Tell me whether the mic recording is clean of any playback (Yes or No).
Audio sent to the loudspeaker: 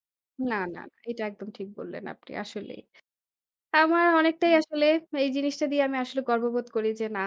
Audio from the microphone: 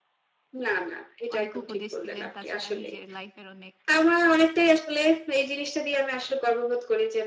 No